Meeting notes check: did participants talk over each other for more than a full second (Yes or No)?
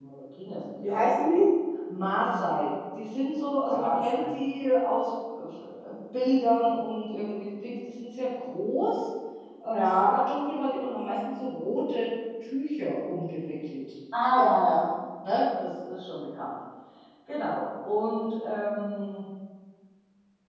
No